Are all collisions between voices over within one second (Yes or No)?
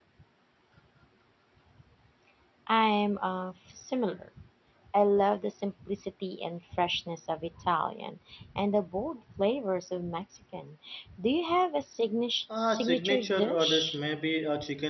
No